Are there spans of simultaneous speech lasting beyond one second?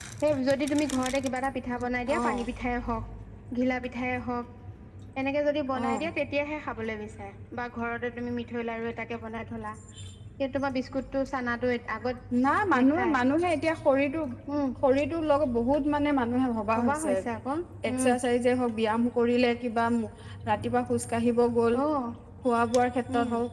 No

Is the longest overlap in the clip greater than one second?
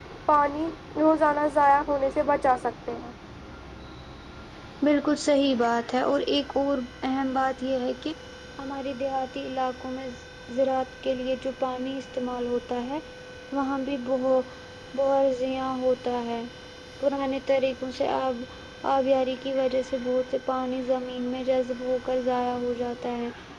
No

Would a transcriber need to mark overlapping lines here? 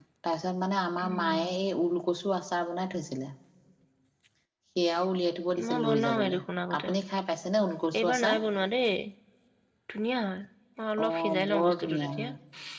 Yes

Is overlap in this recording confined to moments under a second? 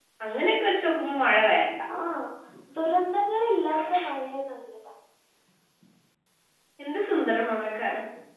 Yes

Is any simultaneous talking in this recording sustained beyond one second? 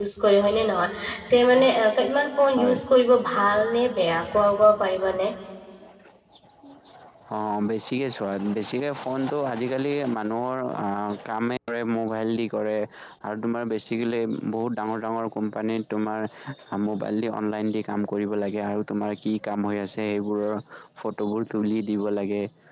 No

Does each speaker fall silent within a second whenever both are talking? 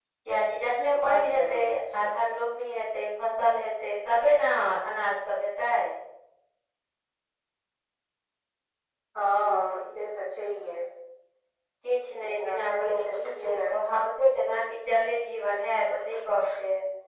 No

